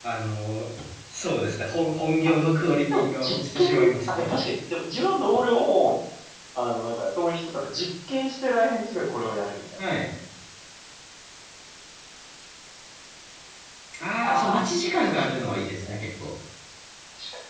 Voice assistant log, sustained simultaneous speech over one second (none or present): present